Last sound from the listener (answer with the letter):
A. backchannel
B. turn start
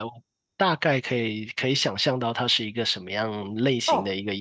B